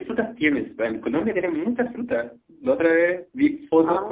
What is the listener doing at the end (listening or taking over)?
listening